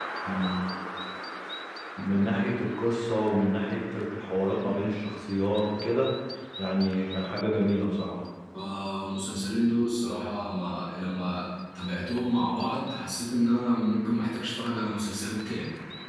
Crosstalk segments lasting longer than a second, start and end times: none

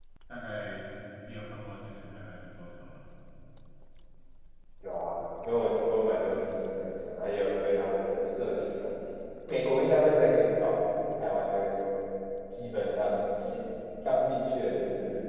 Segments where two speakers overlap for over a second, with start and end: none

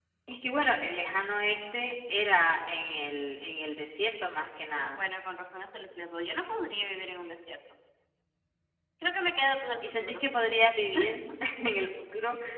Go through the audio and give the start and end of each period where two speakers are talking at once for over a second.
none

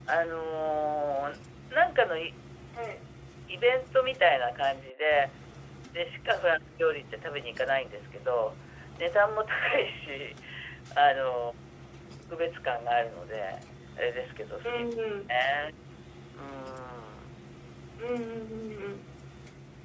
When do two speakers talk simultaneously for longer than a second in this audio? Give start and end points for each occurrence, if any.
none

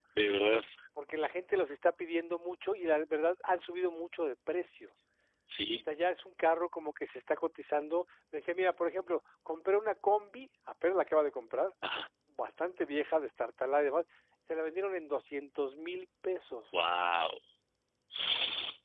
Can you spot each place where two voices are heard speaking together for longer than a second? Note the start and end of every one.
none

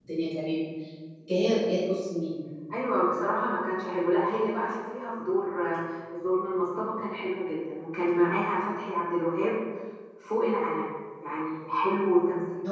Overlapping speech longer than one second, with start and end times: none

